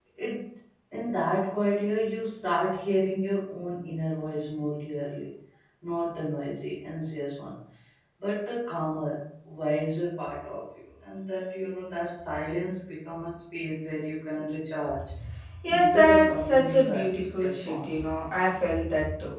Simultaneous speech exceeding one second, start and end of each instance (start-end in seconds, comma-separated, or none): 15.8-18.1